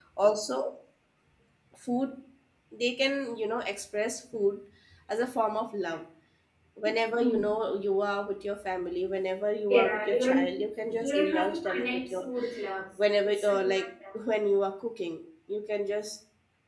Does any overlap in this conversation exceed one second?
Yes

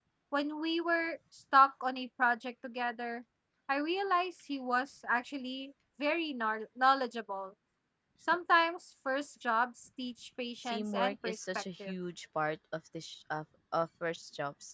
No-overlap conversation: No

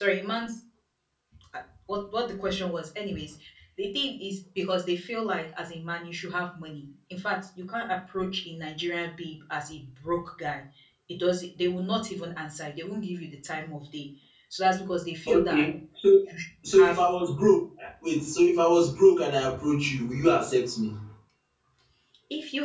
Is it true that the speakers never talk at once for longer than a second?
Yes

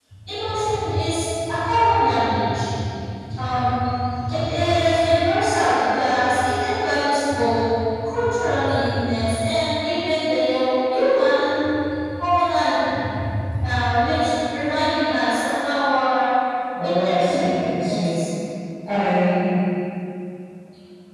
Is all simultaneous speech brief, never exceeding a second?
No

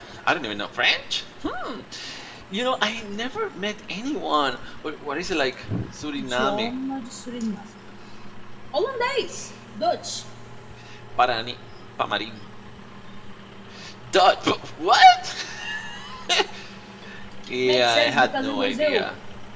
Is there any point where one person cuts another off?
Yes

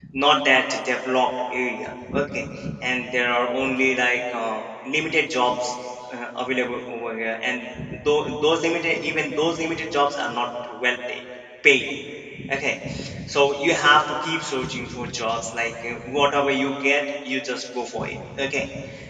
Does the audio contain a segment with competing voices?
No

